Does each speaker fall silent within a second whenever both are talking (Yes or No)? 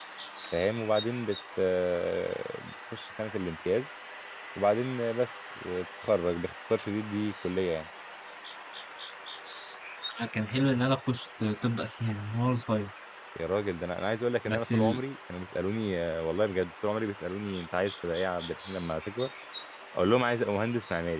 Yes